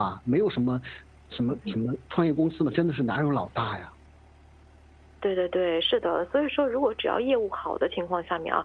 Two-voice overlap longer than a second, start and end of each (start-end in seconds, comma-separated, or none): none